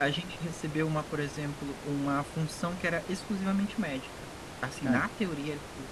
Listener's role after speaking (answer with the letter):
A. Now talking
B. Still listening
B